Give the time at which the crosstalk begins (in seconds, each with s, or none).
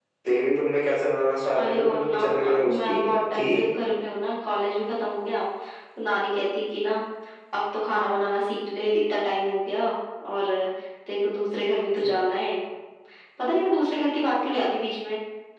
1.6 s